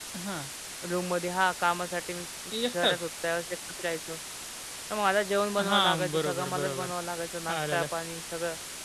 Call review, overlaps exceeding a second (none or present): present